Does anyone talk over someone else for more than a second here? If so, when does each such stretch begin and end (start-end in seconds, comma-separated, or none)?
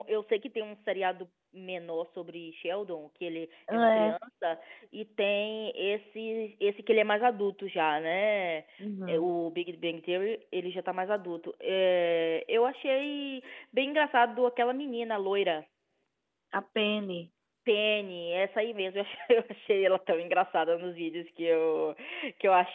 none